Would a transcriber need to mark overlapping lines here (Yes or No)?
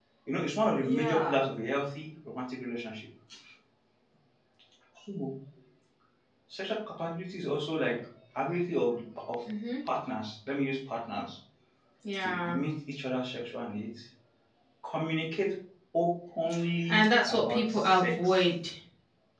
Yes